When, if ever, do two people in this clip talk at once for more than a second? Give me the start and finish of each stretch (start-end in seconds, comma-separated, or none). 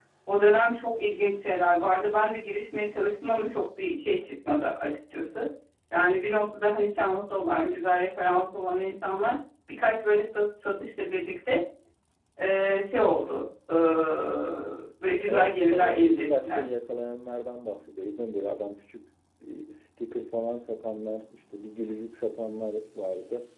15.3-16.6